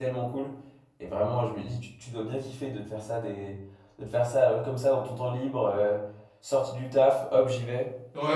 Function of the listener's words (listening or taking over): taking over